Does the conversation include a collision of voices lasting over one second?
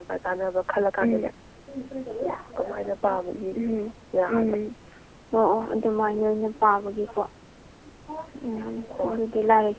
No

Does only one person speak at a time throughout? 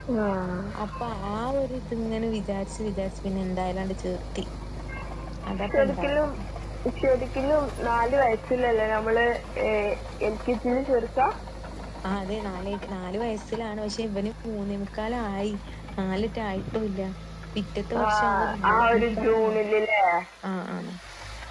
No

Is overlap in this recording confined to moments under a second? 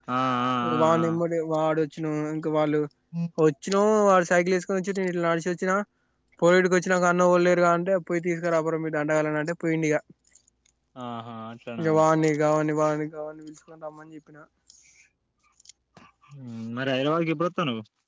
Yes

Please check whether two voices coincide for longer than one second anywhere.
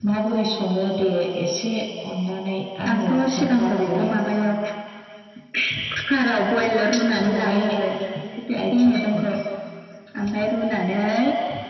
Yes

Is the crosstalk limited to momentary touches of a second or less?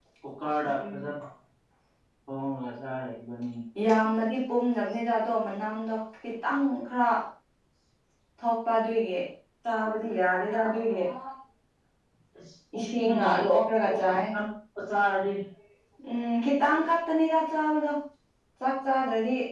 No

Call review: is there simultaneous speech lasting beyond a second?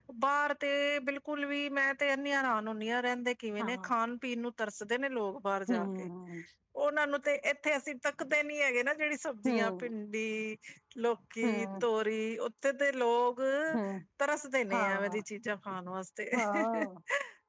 No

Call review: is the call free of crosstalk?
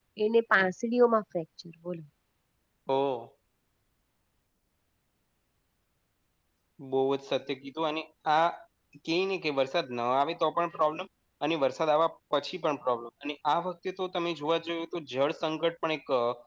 Yes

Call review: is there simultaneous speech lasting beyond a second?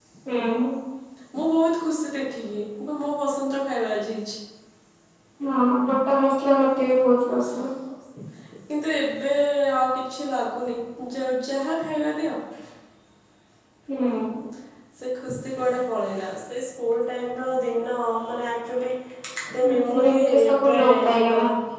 Yes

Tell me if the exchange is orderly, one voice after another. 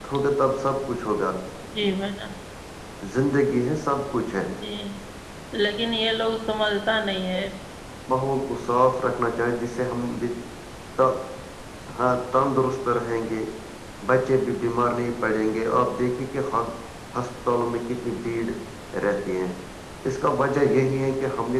Yes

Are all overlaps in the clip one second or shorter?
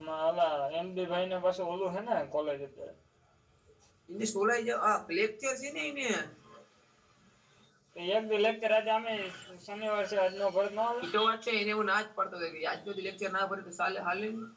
Yes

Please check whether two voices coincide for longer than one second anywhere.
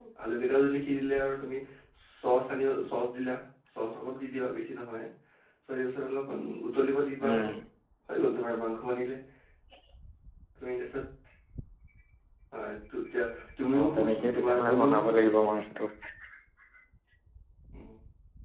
Yes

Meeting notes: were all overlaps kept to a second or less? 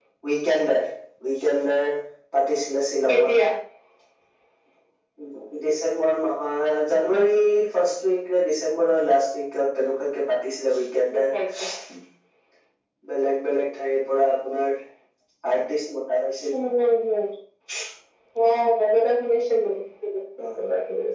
Yes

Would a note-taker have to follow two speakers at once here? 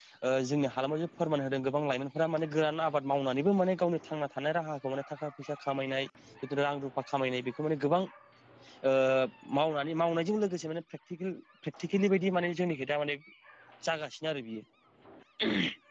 No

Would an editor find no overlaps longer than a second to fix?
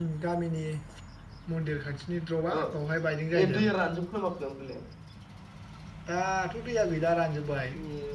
Yes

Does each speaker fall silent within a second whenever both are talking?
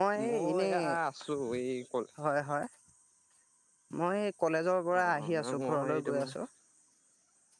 No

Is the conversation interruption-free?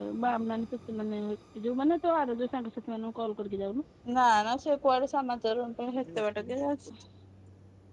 Yes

